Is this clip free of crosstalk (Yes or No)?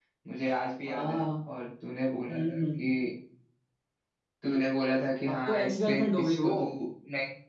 No